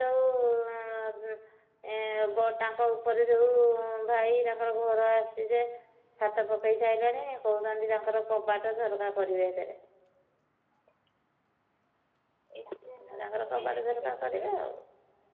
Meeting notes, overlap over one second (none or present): present